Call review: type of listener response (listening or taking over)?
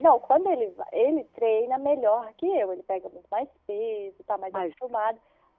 listening